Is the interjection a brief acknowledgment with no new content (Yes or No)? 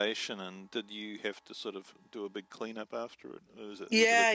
No